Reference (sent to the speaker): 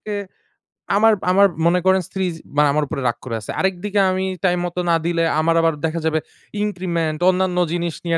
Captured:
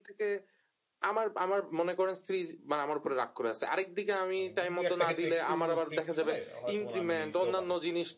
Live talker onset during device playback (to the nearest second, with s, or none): 4 s